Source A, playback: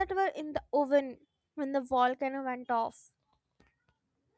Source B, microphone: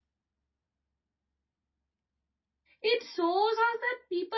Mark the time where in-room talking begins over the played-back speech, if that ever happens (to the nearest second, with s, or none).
3 s